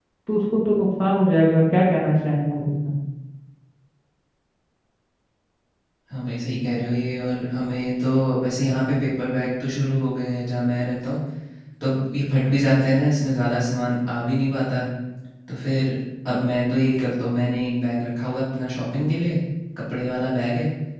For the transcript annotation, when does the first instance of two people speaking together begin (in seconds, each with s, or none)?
none